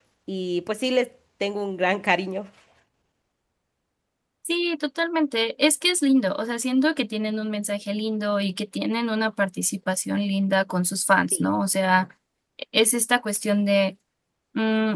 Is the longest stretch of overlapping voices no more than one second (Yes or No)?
Yes